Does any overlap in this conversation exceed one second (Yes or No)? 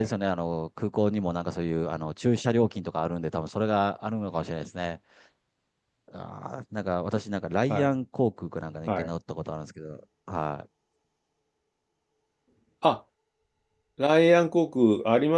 No